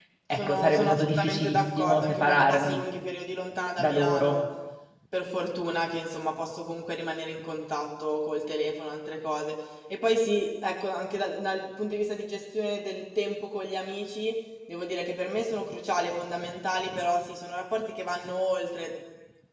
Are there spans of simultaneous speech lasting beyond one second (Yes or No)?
Yes